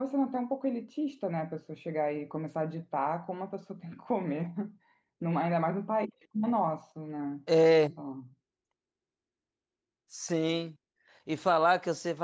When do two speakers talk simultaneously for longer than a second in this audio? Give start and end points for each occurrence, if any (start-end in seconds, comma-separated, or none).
none